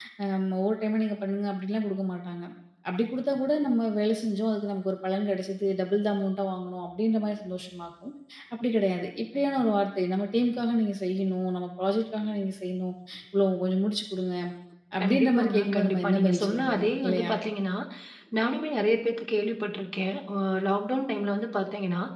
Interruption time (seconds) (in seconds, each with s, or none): 15.0 s